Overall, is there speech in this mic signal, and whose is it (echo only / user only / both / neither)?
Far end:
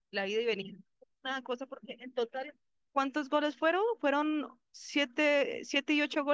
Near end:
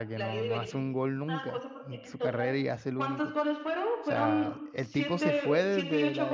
both